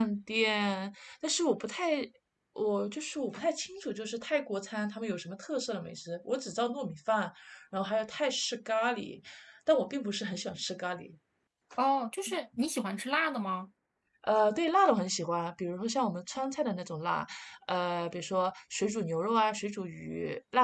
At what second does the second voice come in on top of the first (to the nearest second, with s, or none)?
none